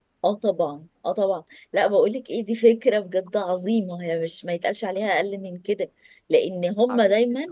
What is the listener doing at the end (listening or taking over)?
listening